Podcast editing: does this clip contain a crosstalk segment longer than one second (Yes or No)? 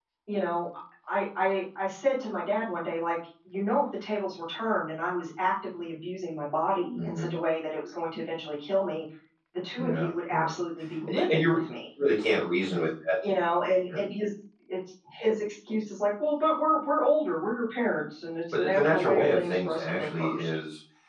Yes